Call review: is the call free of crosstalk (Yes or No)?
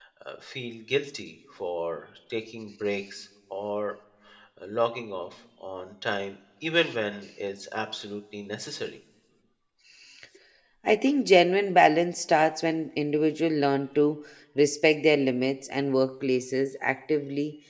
Yes